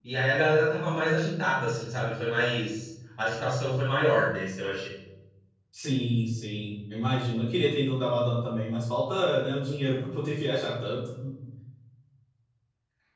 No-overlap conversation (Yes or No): Yes